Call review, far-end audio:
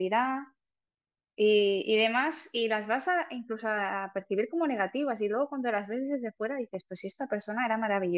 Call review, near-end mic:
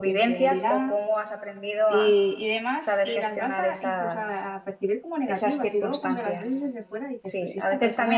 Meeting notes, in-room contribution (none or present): present